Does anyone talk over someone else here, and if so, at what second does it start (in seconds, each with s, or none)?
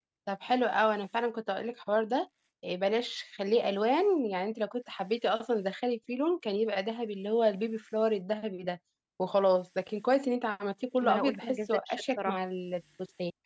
11.0 s